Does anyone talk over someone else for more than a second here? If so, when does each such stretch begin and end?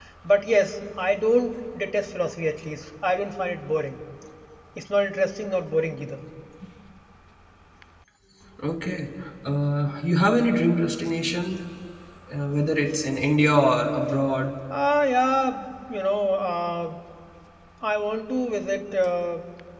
none

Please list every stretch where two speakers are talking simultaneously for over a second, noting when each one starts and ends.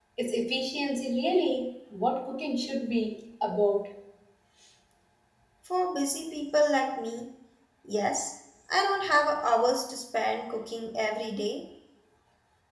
none

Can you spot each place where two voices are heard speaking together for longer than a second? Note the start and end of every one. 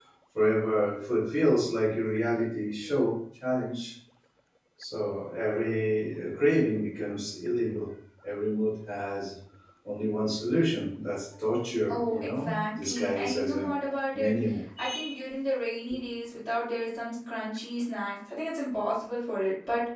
11.9-13.7

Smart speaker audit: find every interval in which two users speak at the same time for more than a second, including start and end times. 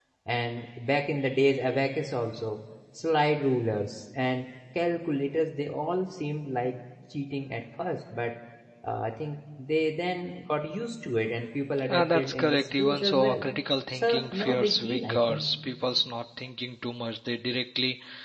11.9-13.4, 13.9-15.5

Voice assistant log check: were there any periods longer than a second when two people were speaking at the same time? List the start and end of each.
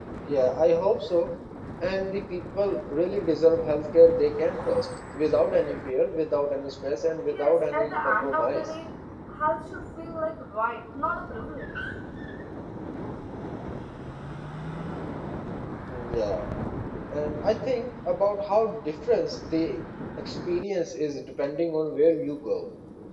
7.3-8.7

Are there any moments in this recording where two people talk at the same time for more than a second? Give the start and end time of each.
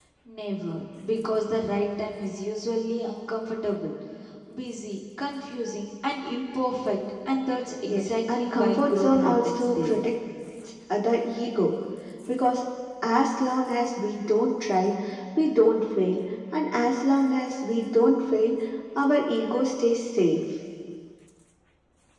7.9-10.0

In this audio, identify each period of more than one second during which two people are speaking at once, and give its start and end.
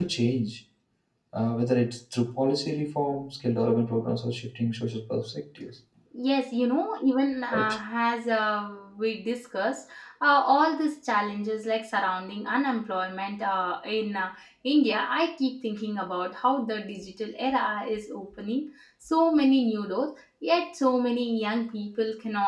none

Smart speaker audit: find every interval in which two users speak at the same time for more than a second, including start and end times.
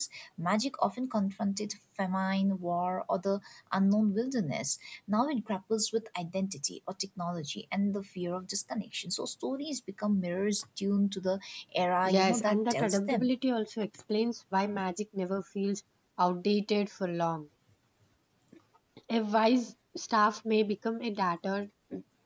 12.0-13.3

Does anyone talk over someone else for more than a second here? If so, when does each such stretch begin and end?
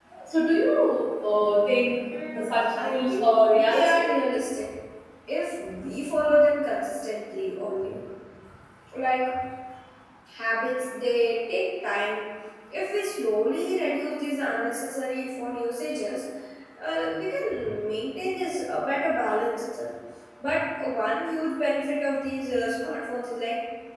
2.3-4.1

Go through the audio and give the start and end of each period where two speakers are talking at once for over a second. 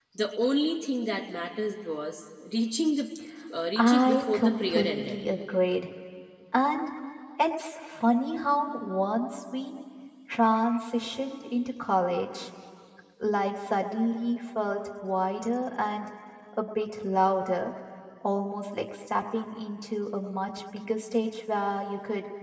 3.8-5.2

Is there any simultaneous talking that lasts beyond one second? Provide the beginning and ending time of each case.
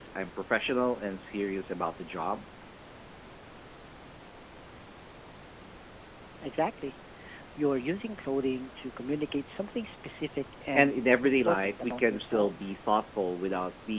10.8-12.7

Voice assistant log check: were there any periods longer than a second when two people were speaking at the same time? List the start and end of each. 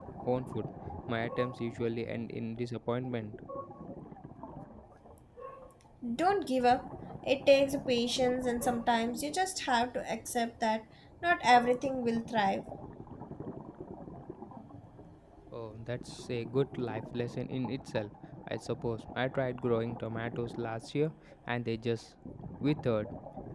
none

